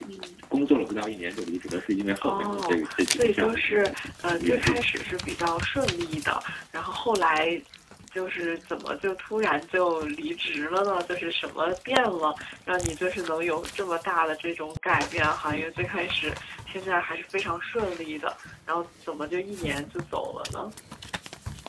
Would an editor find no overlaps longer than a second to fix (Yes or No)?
No